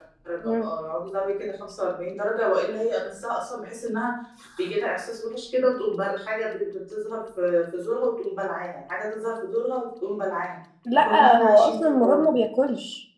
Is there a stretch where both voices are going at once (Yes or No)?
Yes